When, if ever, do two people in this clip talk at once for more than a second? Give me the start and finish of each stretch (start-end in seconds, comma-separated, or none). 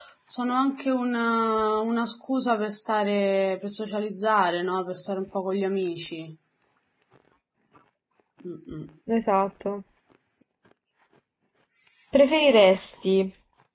none